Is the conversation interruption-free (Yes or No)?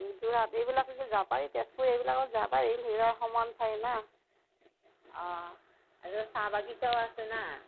Yes